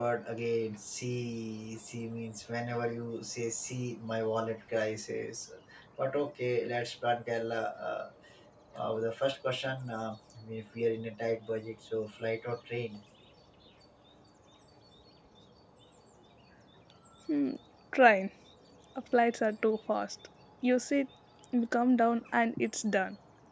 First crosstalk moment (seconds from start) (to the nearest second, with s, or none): none